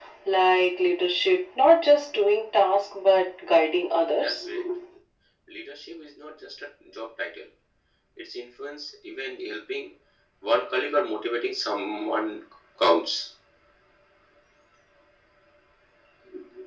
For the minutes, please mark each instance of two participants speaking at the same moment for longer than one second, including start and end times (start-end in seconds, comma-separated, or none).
none